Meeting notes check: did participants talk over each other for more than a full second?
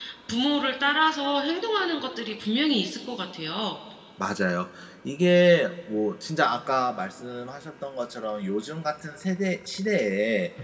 No

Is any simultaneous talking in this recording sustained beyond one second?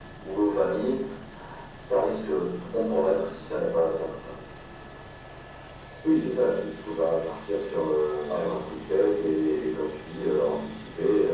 No

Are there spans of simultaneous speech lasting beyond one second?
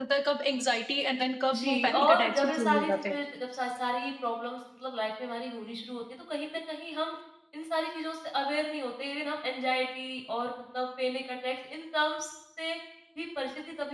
Yes, from 1.5 s

